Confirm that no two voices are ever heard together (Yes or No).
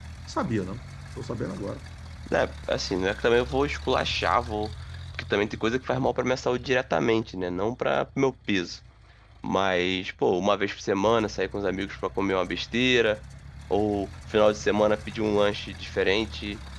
Yes